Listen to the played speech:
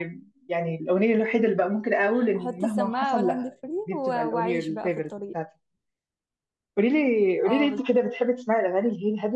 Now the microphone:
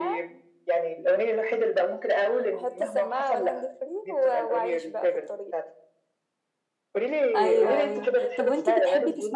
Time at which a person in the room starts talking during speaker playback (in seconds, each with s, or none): 7.3 s